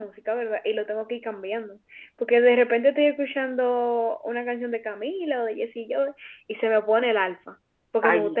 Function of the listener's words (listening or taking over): taking over